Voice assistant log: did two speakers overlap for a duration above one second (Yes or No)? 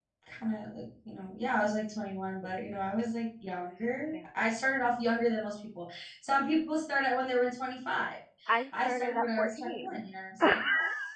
Yes